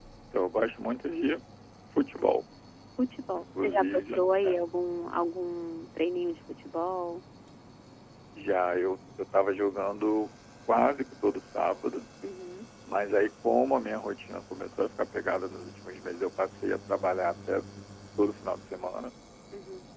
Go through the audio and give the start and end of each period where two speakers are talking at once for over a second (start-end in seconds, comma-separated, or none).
3.3-4.6